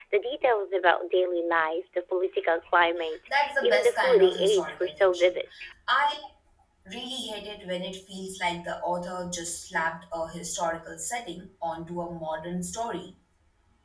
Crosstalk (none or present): present